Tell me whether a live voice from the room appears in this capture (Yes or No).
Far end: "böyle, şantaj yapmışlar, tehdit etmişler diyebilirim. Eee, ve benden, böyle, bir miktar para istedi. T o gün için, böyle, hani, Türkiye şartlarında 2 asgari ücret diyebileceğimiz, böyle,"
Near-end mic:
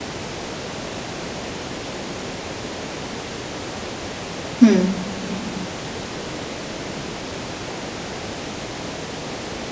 Yes